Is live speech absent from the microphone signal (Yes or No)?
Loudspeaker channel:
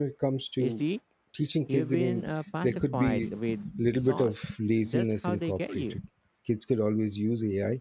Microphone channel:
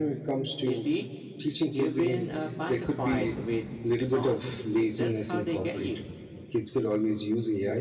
Yes